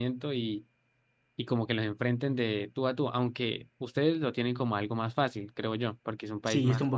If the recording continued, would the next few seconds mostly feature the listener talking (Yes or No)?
Yes